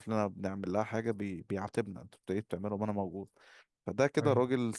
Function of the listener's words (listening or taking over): listening